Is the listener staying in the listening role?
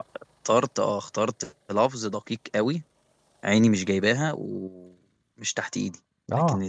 Yes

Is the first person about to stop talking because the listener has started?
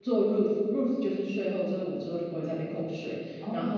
No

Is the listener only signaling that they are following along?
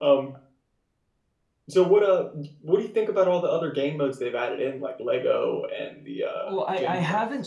No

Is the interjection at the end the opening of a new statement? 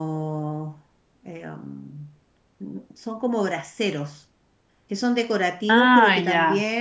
No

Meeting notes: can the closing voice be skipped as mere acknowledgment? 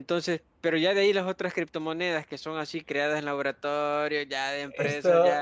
No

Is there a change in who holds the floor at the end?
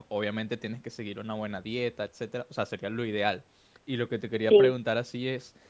No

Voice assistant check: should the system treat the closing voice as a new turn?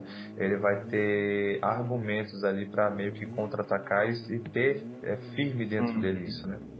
Yes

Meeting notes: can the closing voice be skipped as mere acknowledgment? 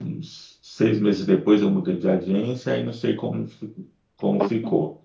Yes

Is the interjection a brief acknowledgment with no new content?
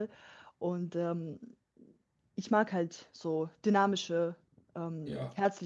No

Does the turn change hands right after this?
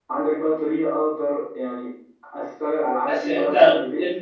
Yes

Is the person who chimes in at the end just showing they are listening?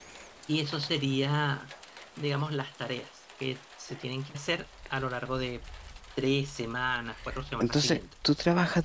No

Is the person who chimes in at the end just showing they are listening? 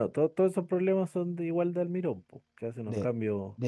No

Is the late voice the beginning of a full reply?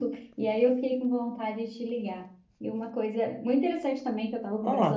No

